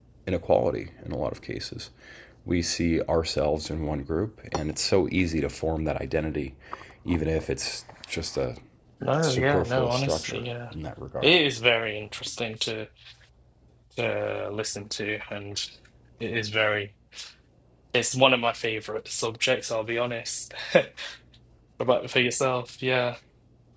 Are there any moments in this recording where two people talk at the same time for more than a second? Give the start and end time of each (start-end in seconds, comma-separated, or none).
9.2-10.4